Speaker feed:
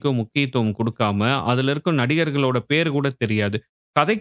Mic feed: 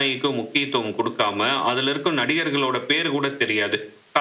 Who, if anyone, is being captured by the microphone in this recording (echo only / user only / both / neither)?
echo only